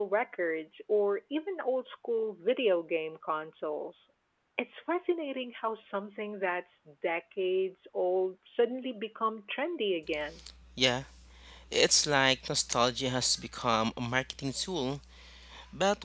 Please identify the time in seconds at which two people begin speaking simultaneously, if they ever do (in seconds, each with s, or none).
none